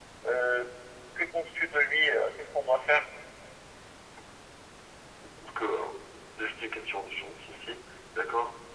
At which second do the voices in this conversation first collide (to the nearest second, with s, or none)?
none